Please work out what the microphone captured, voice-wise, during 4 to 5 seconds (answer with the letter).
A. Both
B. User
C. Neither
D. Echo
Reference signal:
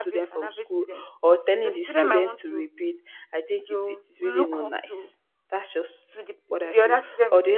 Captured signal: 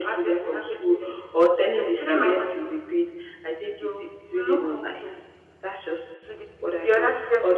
D